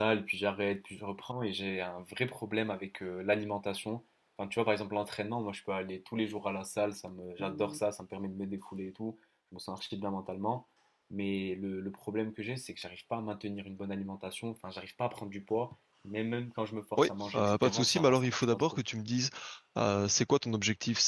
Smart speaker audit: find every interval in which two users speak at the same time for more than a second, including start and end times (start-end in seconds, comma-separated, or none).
17.0-18.8